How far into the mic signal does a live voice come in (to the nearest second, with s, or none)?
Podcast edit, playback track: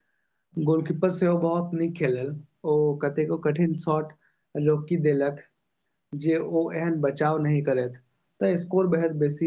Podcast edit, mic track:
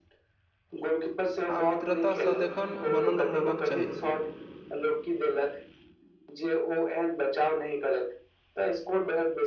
2 s